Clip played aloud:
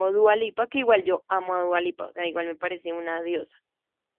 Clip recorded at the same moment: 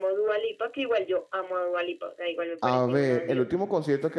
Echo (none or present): present